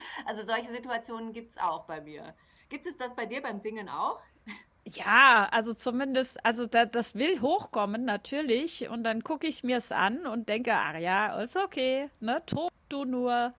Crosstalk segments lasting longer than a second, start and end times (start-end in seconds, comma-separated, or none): none